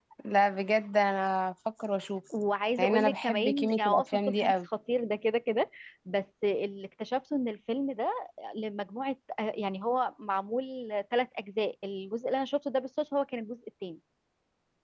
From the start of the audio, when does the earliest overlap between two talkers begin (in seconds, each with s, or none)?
2.8 s